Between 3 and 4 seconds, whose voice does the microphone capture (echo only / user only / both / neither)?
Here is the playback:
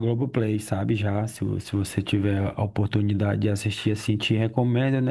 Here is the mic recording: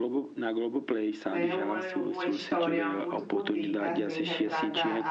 both